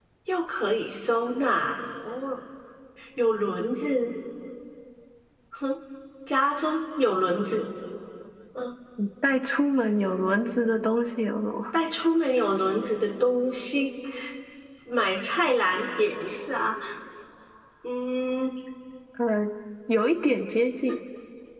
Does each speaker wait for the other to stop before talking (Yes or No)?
Yes